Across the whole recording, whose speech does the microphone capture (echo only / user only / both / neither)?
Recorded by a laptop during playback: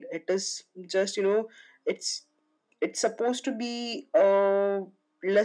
echo only